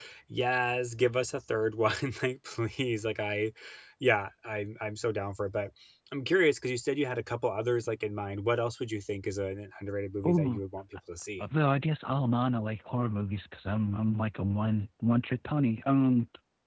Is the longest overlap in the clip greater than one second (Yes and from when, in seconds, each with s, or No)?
No